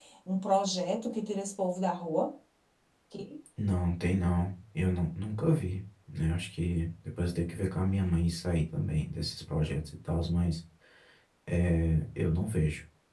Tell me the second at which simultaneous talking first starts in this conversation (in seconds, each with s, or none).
none